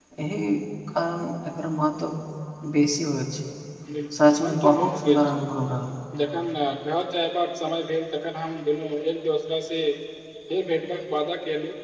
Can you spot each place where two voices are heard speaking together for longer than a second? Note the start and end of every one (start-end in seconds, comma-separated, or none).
4.2-5.4